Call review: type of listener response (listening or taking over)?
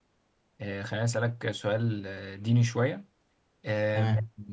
listening